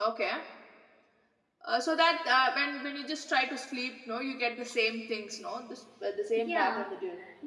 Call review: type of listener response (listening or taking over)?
taking over